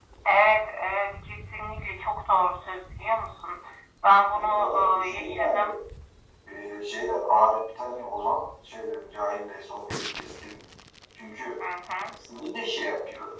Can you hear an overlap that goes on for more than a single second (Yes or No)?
Yes